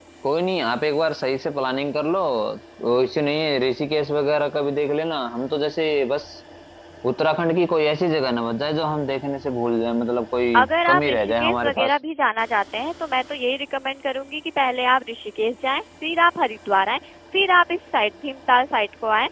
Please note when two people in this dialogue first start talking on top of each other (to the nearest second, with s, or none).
11 s